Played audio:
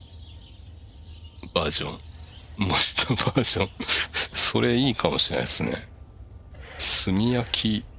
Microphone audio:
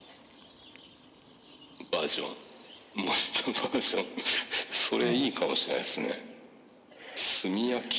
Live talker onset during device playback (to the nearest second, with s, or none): 5 s